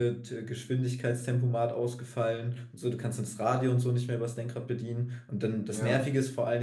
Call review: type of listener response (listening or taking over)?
listening